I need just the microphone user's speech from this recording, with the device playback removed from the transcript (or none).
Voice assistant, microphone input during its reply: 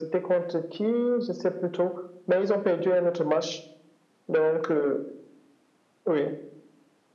none